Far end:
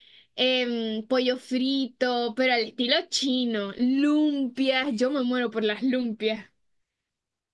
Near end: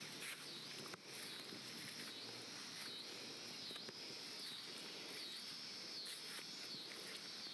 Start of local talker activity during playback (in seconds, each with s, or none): none